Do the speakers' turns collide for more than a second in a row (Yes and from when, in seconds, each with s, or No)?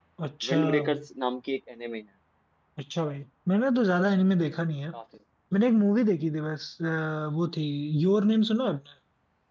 No